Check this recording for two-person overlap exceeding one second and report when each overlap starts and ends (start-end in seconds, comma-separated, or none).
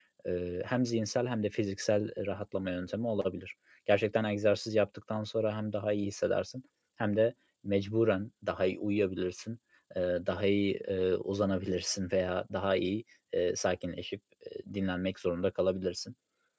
none